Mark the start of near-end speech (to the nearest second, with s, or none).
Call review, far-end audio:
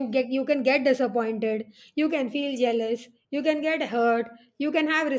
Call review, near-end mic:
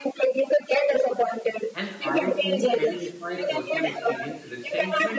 2 s